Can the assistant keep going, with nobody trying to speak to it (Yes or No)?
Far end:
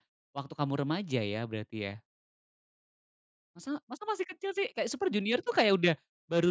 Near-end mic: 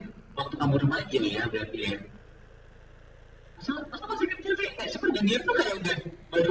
Yes